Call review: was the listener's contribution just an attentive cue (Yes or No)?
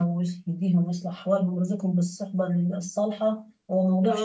Yes